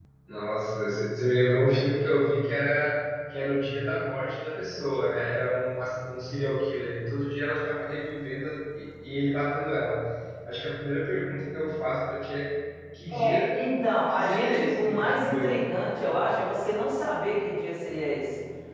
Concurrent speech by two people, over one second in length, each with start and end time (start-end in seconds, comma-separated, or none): 14.1-15.7